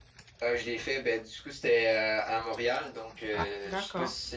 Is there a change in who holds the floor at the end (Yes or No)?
No